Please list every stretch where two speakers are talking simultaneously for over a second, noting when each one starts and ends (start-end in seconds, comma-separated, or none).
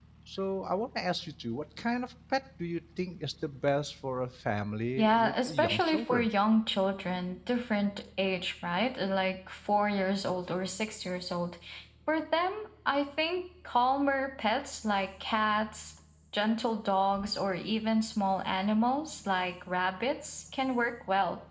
5.0-6.3